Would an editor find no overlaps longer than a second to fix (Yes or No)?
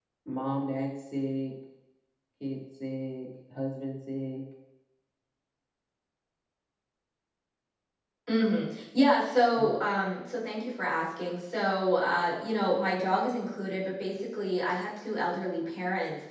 Yes